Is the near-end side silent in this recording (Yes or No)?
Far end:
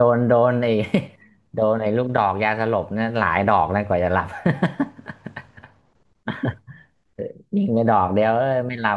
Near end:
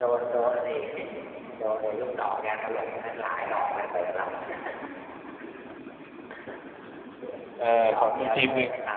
No